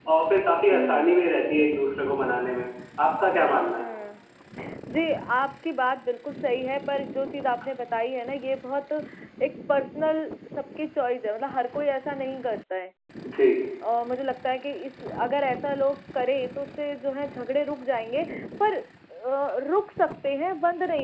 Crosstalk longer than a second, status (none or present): none